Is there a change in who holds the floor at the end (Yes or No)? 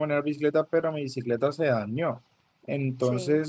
No